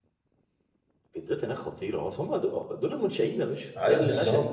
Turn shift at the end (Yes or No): Yes